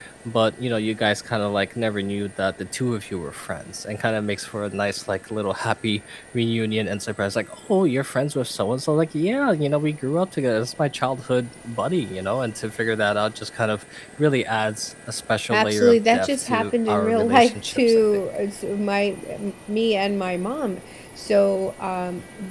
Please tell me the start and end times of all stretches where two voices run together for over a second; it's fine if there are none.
15.5-18.0

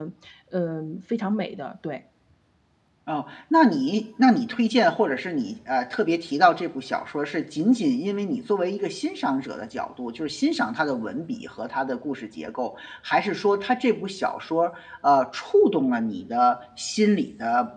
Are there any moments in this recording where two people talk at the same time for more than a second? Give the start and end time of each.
none

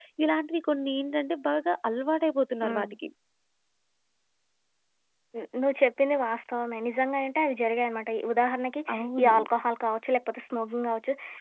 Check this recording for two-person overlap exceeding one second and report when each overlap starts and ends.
none

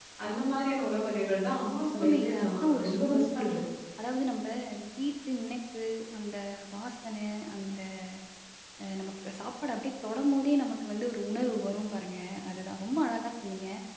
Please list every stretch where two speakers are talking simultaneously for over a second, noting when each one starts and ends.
2.0-3.5

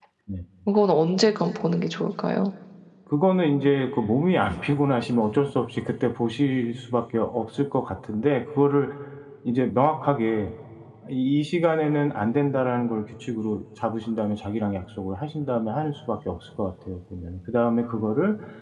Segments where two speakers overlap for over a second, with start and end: none

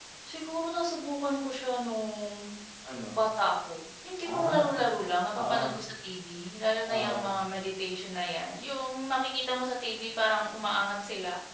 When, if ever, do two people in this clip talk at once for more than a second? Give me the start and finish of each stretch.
none

